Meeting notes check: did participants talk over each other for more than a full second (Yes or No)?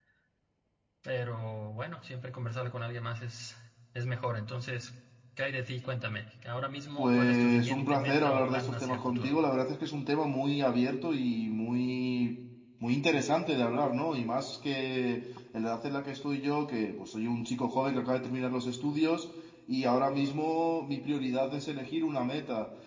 Yes